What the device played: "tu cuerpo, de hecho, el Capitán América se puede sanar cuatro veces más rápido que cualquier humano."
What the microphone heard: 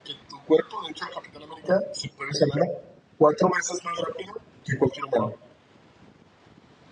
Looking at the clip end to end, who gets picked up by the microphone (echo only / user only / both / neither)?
echo only